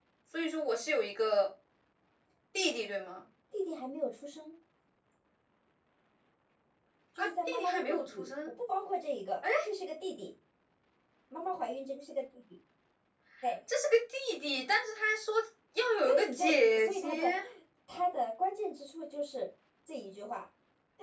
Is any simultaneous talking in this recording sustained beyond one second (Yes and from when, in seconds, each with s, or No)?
Yes, from 7.2 s